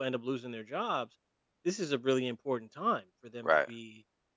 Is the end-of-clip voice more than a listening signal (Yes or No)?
No